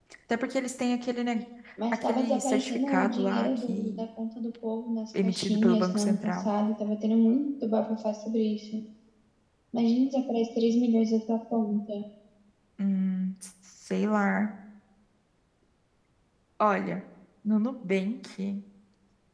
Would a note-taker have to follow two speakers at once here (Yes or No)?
Yes